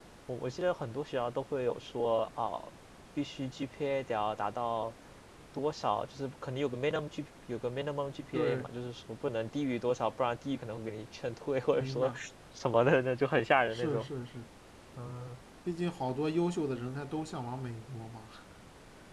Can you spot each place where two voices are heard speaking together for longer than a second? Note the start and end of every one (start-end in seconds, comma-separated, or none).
none